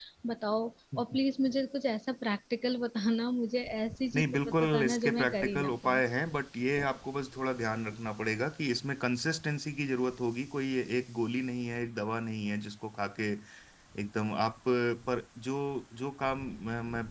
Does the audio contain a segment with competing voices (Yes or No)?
Yes